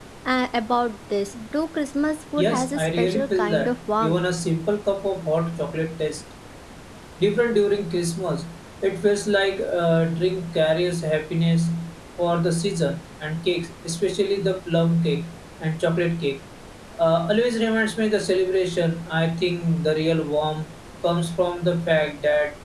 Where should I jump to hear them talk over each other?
2 s

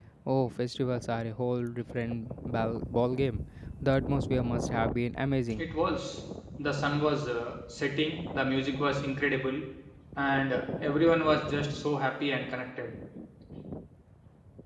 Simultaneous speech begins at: none

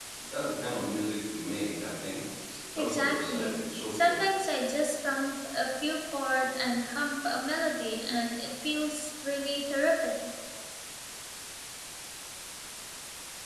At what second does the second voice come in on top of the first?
3 s

